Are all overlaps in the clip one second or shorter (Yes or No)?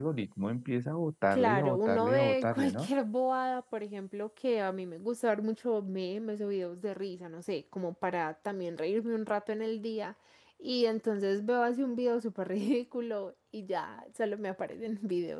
No